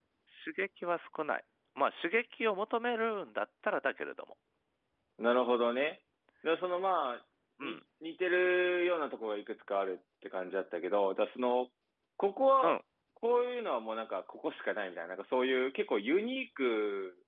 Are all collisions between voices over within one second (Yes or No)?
Yes